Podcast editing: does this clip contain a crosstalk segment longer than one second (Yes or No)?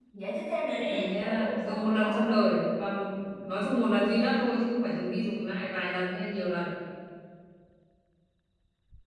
Yes